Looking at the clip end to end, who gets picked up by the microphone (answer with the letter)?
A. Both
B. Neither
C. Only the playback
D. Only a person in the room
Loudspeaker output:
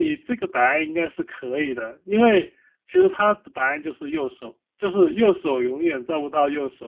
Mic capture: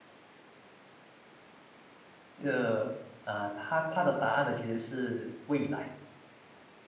D